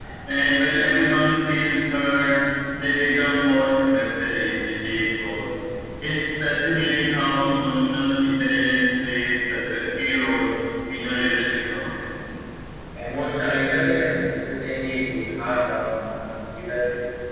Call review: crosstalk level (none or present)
none